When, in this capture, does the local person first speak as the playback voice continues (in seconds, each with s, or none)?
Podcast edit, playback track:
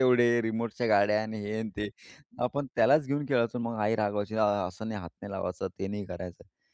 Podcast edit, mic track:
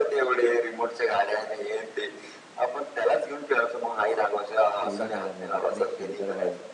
4.8 s